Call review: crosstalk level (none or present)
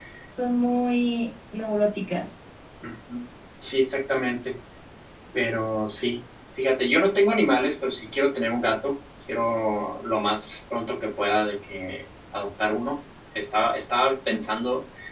none